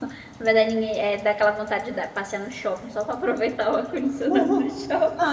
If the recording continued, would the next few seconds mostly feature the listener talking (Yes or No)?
Yes